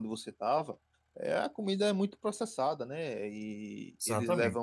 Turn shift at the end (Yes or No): No